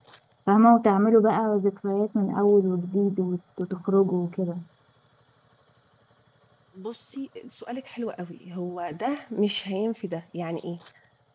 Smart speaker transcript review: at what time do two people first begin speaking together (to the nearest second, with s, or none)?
none